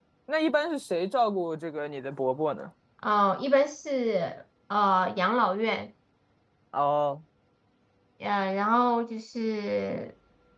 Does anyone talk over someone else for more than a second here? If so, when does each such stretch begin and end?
none

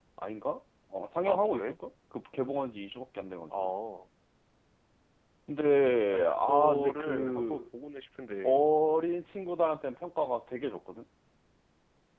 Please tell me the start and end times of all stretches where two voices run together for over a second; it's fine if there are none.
6.1-7.6

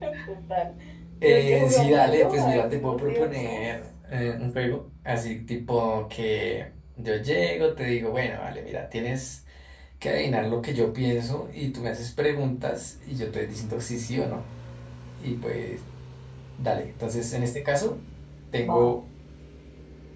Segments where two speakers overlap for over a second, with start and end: 1.2-3.6

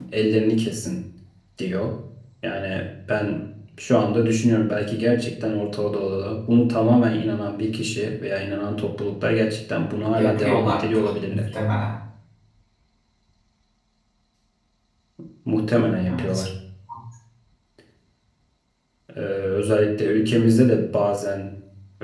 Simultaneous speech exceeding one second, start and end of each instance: 10.2-11.4

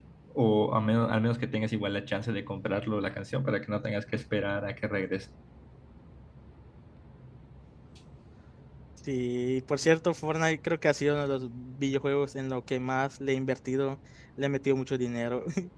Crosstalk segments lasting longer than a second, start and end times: none

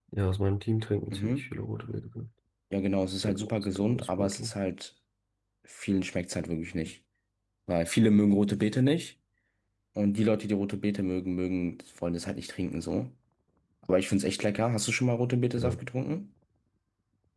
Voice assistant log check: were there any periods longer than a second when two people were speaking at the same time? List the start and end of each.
3.2-4.5

